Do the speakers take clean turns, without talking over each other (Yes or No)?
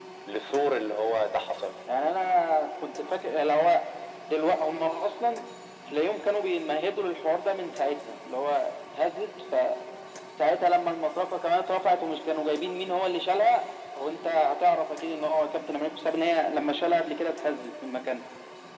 Yes